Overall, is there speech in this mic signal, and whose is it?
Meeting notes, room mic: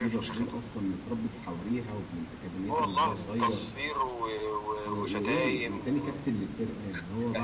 both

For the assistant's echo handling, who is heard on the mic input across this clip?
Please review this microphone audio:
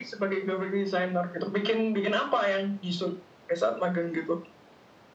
echo only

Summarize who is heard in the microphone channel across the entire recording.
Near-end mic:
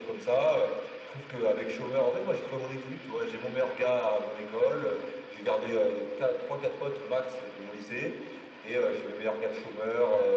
echo only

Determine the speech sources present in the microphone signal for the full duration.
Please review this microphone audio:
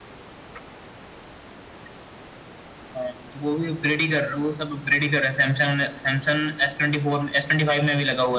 echo only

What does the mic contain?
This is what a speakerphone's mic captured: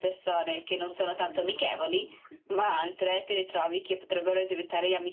both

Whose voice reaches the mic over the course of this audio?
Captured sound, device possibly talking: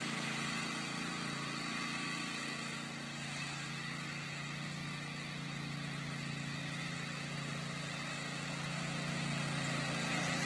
neither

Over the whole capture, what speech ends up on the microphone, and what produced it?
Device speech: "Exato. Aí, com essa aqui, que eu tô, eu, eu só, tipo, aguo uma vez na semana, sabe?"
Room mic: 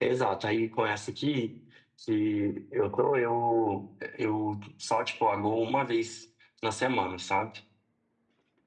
echo only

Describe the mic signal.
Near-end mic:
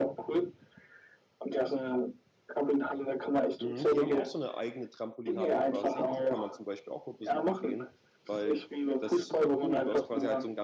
both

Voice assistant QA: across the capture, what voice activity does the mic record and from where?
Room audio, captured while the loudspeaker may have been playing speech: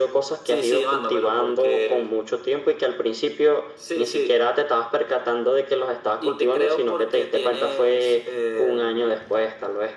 echo only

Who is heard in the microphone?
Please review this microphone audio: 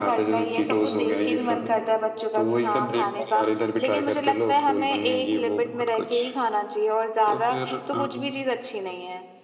echo only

